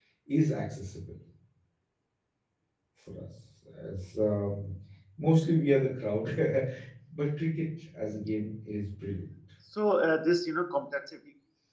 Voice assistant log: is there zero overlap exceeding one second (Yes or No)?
Yes